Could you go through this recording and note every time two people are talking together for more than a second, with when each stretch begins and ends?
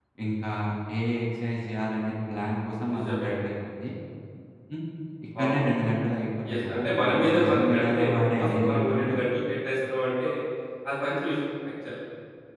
6.5-9.2

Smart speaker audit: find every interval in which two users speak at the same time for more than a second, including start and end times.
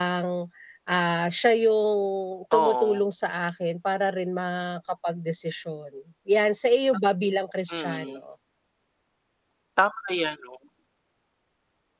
none

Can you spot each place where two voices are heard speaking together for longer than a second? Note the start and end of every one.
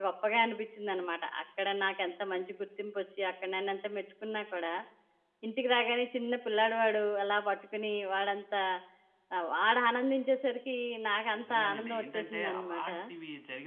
11.4-12.9

